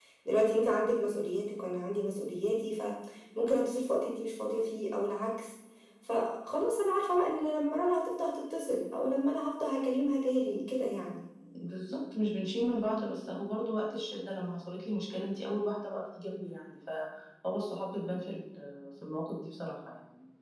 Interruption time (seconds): none

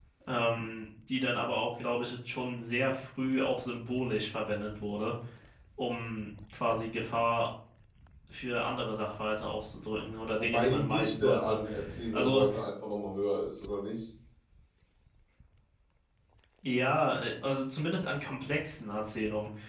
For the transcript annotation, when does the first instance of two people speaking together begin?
10.3 s

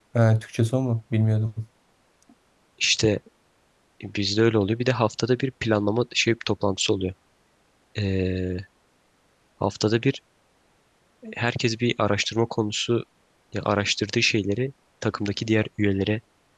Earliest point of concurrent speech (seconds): none

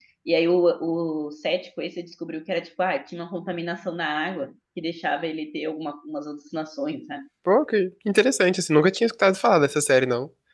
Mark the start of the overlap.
none

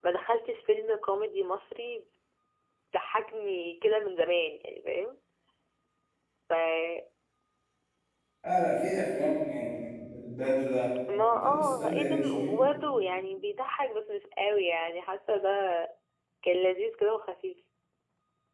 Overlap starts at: 11.1 s

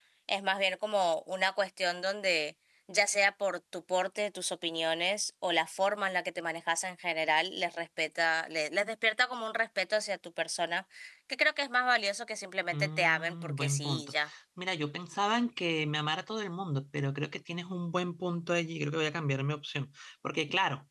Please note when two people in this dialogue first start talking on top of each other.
12.7 s

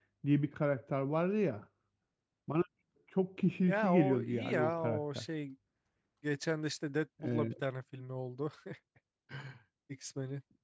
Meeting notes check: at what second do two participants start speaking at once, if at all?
3.7 s

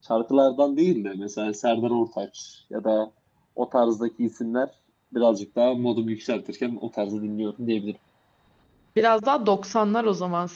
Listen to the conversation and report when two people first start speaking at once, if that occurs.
none

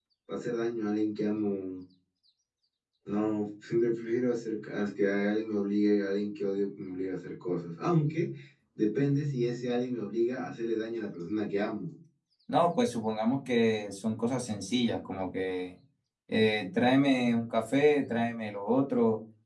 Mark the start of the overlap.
none

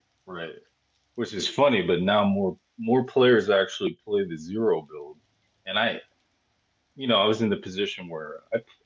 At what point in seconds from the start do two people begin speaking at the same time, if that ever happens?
none

